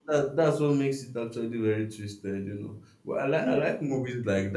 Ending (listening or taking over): listening